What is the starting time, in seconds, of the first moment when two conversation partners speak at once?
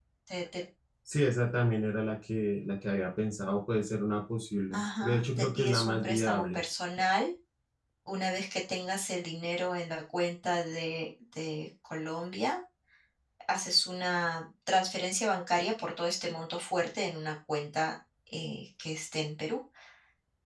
4.7 s

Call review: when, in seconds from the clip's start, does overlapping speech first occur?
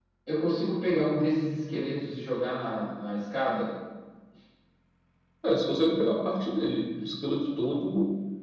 none

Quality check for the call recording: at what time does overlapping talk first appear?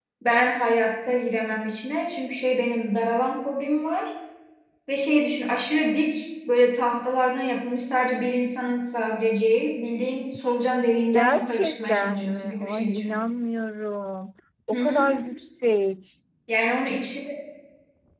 11.1 s

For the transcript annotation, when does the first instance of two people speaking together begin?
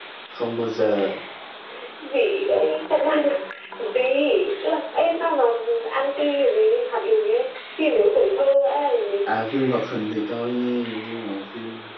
none

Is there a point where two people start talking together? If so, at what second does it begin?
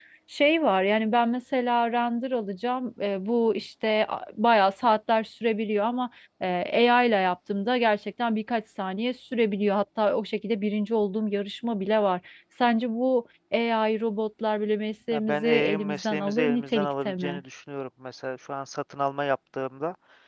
15.1 s

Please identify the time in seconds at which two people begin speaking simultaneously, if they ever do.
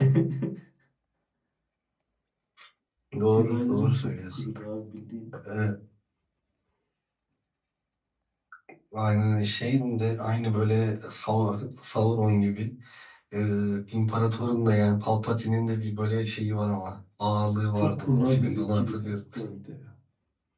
3.3 s

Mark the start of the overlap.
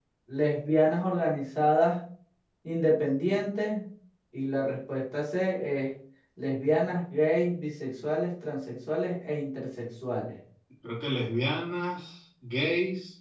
none

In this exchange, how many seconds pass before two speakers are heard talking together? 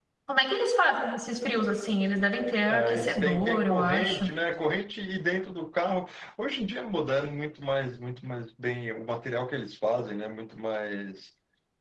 2.7 s

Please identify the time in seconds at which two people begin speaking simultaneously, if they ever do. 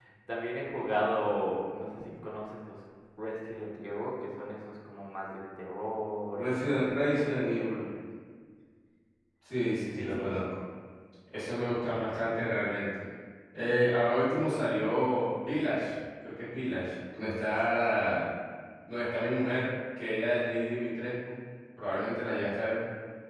6.4 s

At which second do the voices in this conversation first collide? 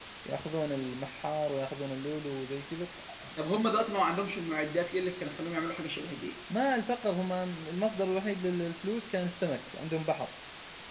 none

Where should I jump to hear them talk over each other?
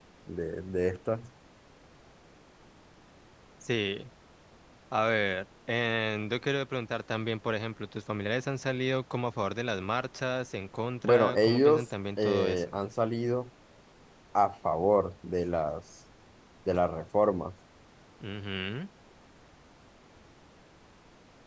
11.0 s

